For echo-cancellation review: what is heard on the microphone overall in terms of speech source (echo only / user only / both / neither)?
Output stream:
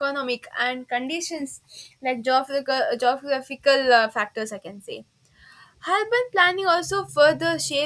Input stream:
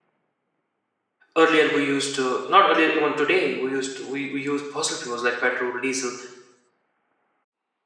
user only